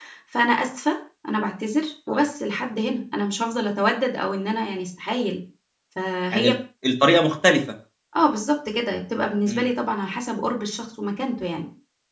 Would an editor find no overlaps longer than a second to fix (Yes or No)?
Yes